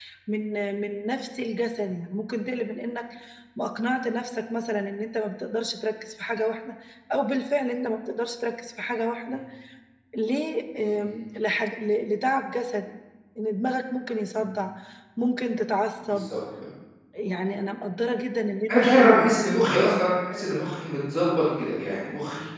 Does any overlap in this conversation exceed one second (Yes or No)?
No